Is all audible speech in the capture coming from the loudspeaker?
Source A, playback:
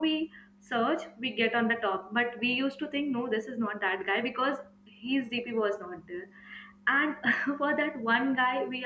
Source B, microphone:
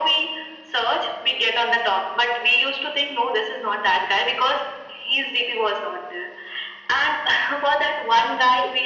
Yes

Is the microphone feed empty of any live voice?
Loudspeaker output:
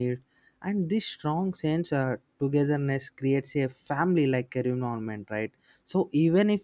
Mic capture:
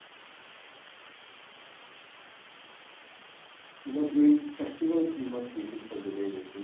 No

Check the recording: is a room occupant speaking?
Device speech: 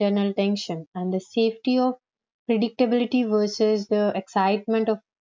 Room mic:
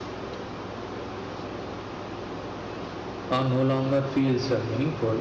Yes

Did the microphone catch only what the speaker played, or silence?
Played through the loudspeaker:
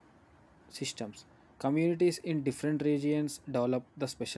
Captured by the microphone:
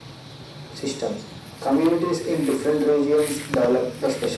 Yes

